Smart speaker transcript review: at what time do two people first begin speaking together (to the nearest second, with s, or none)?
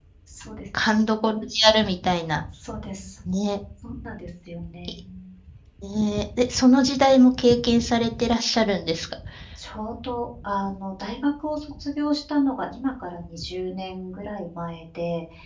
none